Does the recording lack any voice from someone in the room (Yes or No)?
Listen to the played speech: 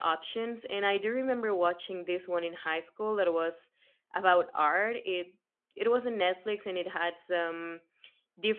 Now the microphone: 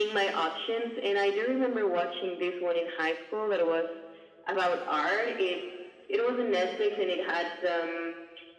Yes